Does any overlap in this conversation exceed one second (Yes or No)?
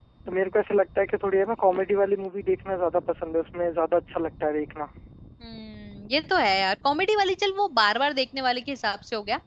No